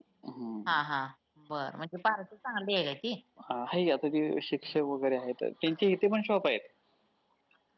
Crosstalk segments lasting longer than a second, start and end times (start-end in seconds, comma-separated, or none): none